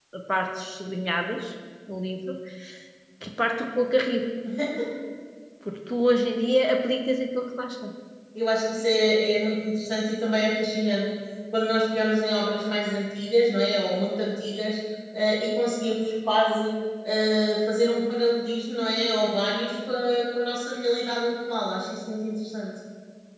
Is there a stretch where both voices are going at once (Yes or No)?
No